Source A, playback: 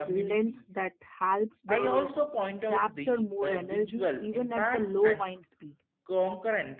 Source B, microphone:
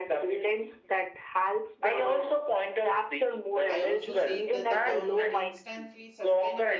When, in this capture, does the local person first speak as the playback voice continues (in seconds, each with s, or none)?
3.7 s